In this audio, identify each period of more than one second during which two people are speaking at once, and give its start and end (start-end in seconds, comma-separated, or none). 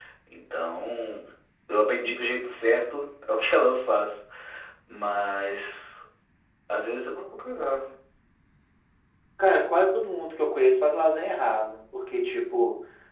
none